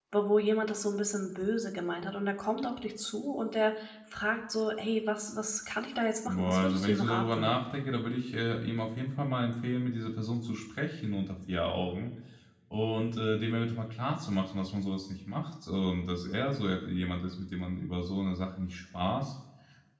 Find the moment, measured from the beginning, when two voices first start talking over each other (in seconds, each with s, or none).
6.3 s